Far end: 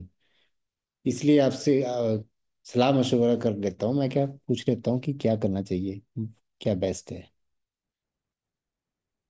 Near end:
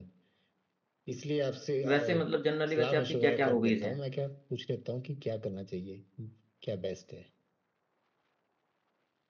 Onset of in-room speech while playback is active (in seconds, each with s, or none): 1.8 s